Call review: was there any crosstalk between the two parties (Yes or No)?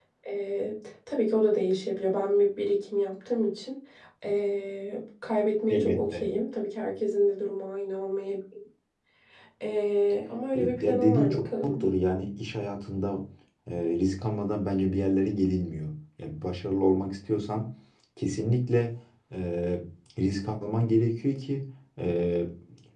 Yes